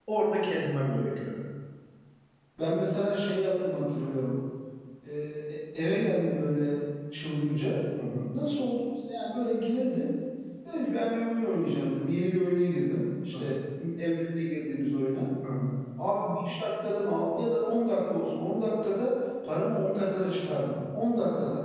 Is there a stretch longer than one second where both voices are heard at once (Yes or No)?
No